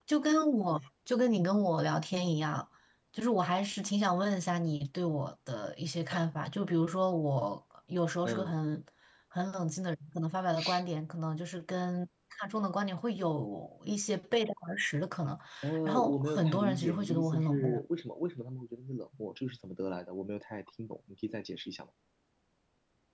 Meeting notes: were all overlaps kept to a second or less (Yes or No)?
No